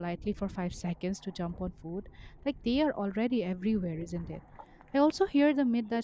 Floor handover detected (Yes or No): No